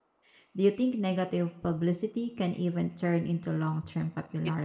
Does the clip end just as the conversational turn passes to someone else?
Yes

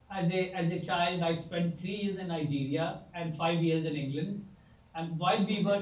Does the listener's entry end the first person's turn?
No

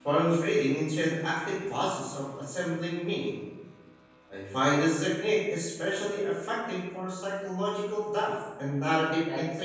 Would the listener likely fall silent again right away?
No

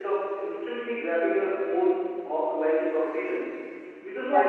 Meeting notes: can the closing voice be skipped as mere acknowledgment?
Yes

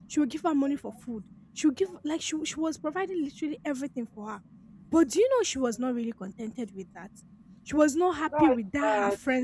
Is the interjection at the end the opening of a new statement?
No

